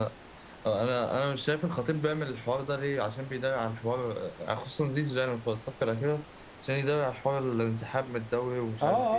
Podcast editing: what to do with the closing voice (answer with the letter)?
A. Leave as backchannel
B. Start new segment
B